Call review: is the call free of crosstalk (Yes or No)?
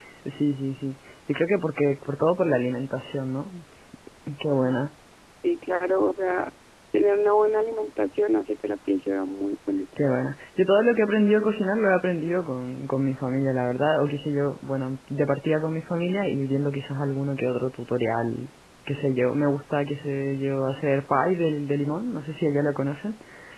Yes